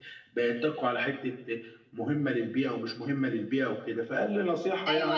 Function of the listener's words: taking over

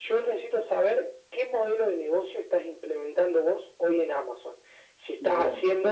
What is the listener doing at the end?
listening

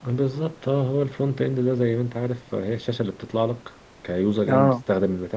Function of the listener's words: listening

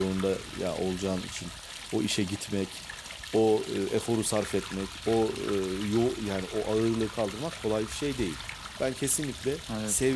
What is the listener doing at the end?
listening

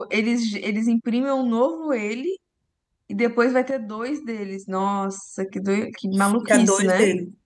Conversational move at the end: taking over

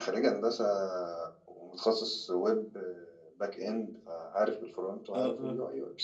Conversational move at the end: taking over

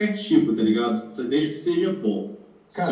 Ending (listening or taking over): taking over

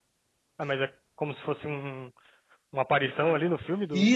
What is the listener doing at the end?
taking over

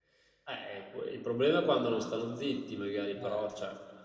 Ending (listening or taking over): listening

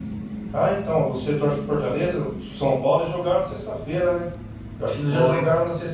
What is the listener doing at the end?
listening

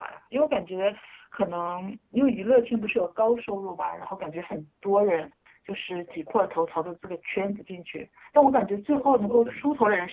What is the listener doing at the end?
listening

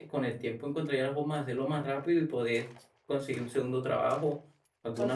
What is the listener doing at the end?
listening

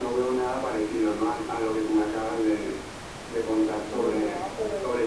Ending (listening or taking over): taking over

